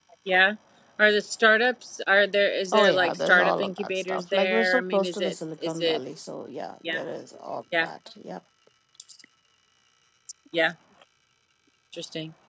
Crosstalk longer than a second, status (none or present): present